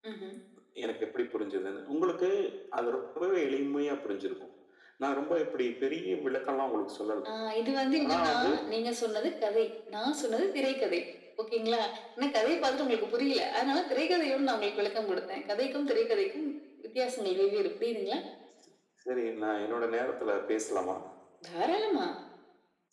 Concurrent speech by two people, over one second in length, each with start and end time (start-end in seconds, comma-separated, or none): none